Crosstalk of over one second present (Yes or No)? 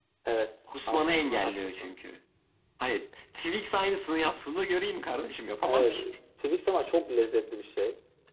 Yes